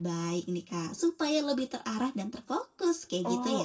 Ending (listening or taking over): taking over